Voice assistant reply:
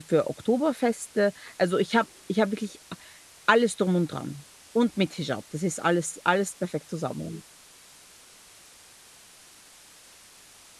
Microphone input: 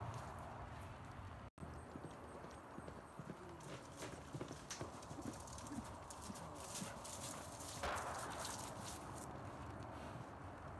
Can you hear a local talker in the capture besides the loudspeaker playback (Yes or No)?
No